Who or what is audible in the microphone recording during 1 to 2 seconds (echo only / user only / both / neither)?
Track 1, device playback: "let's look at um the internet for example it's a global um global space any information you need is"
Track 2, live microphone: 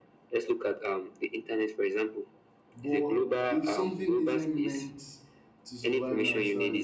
echo only